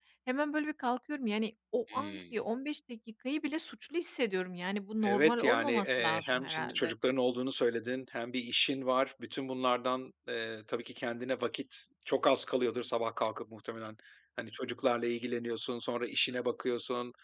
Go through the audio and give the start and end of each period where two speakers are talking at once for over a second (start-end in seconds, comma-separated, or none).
5.0-6.9